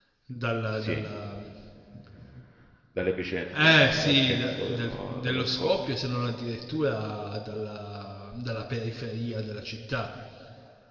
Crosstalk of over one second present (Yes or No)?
Yes